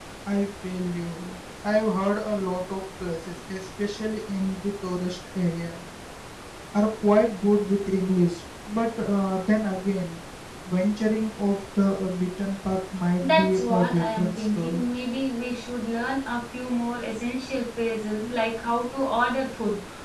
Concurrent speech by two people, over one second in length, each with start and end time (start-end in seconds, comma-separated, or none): 13.2-14.8